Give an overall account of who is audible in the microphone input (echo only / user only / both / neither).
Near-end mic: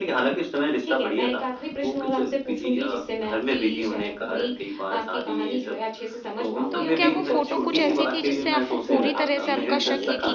both